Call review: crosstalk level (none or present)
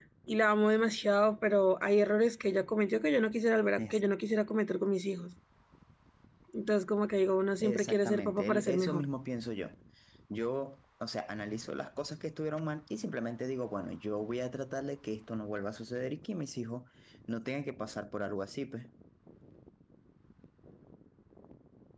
present